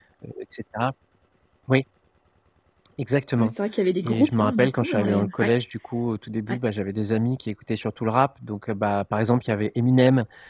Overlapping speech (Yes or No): Yes